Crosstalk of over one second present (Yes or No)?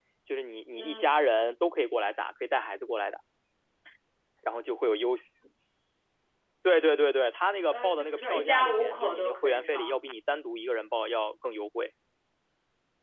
Yes